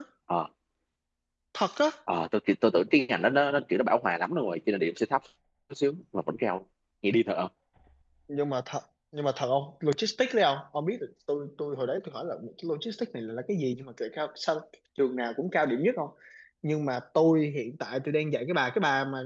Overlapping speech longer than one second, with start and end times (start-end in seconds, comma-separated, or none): none